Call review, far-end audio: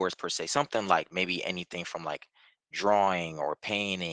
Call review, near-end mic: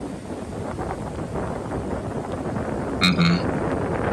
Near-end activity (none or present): present